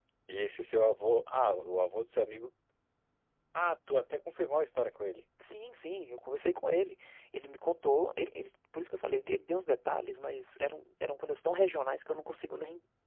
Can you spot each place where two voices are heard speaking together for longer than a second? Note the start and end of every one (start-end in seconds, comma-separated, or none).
none